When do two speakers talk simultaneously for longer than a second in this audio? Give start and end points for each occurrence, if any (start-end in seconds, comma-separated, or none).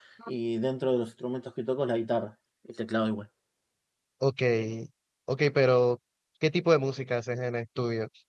none